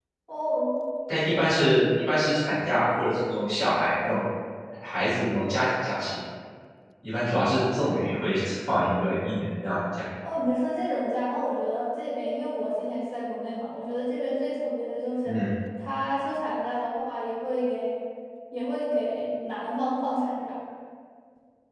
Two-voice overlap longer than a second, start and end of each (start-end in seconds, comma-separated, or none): none